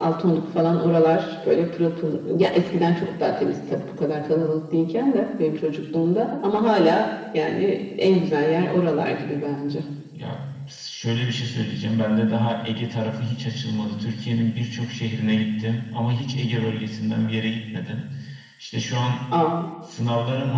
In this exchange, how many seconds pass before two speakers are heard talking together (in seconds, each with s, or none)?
none